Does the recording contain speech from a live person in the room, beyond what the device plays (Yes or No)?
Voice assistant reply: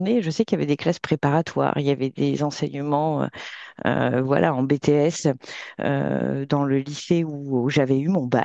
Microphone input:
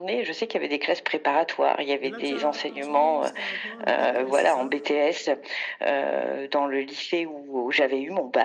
Yes